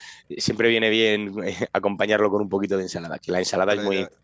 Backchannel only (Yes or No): Yes